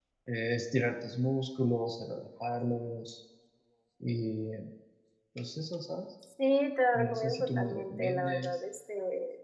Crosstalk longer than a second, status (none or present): present